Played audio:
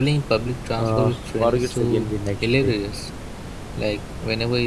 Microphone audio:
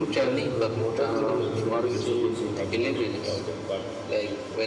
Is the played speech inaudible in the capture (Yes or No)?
No